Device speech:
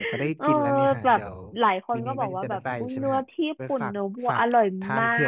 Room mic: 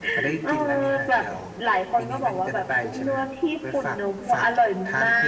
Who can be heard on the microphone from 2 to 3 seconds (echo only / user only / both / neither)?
echo only